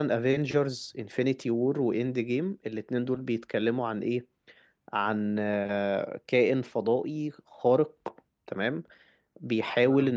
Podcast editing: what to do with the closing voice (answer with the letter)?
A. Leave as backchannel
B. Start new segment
A